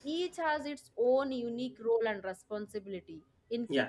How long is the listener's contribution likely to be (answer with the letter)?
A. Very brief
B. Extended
A